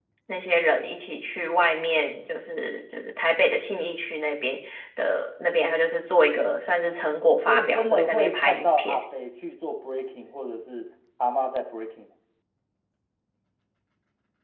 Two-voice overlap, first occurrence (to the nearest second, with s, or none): 7 s